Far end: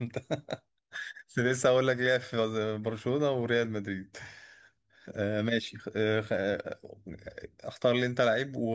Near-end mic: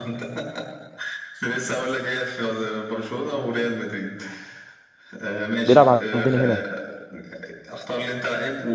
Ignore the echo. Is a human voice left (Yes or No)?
Yes